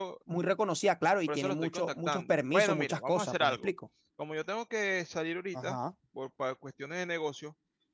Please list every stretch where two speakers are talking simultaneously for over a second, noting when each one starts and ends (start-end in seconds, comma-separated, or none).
1.3-3.7